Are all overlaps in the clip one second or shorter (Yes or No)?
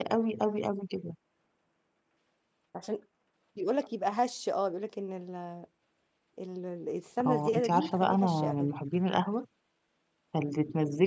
No